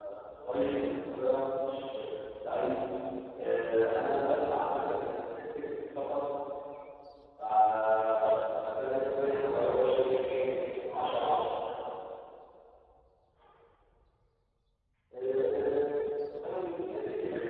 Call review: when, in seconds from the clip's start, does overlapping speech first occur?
9 s

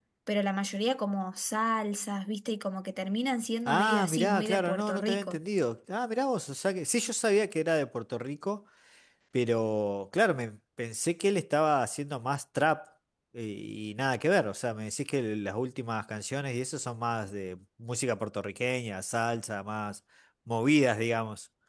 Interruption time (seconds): 4 s

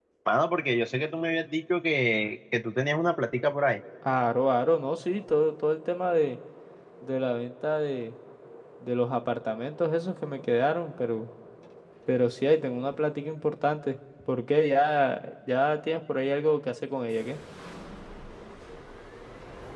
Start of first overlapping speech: none

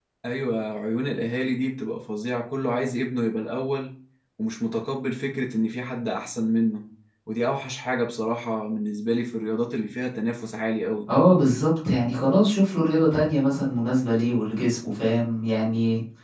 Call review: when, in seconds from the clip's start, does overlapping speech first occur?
none

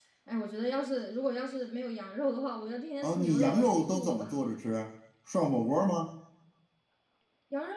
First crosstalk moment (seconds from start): 3 s

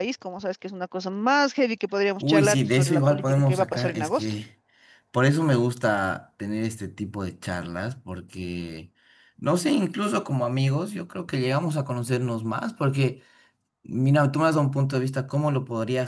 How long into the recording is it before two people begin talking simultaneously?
2 s

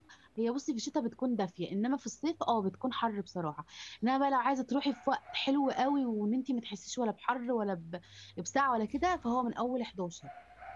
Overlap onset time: none

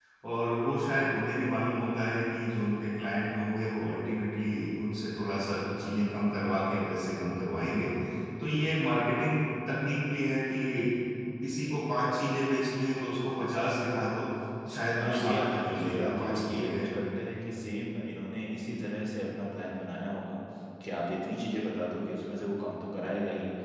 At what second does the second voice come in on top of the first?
15 s

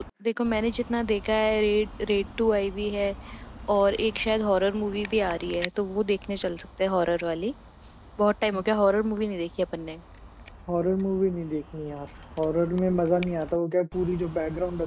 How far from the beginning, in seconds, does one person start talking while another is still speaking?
none

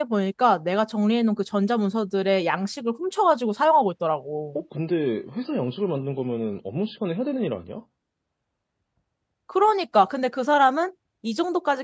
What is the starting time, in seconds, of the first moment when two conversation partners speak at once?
none

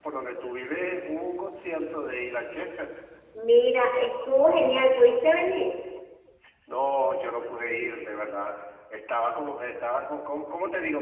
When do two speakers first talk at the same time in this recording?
none

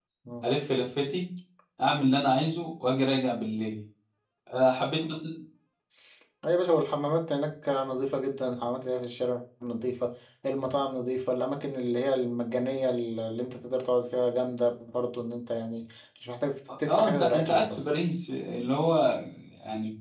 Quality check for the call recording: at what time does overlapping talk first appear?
17 s

